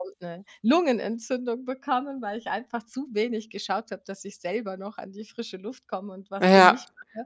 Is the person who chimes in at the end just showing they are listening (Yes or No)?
No